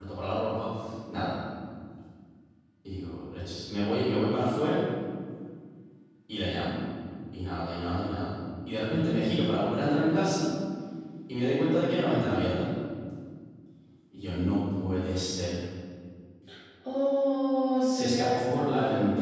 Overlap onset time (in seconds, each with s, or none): 17.9 s